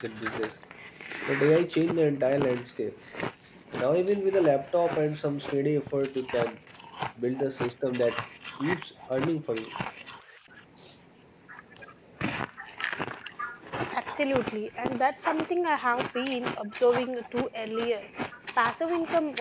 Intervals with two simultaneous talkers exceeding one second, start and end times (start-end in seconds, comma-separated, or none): none